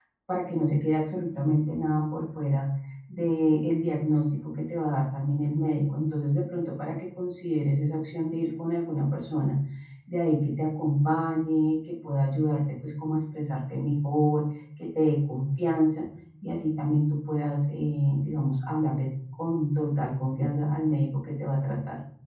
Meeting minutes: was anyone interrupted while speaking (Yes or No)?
No